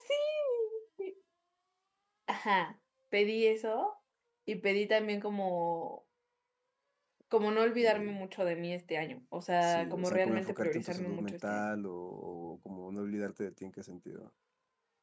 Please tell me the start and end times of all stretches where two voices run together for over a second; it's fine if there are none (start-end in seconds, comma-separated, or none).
9.6-11.6